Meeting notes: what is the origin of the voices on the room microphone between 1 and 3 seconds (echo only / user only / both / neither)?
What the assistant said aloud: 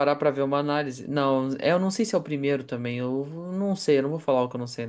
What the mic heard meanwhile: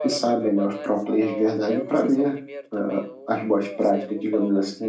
both